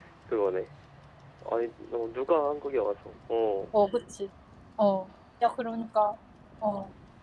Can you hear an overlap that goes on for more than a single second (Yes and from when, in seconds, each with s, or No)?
No